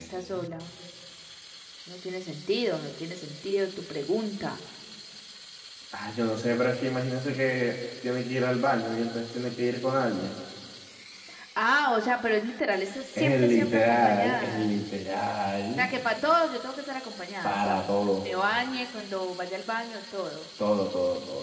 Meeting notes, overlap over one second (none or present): present